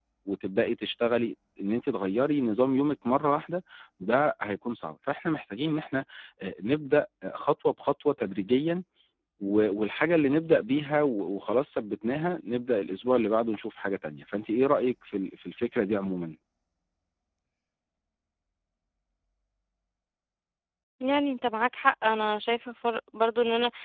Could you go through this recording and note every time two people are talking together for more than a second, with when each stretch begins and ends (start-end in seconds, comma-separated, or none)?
none